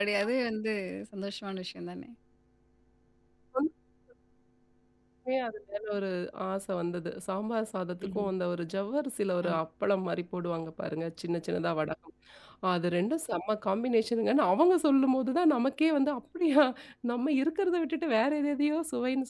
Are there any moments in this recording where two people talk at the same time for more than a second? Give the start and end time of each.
none

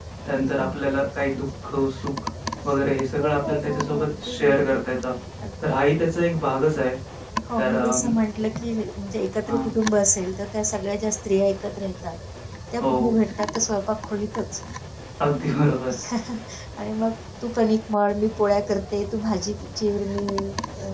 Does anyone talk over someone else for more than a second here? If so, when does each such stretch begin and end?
3.2-4.8

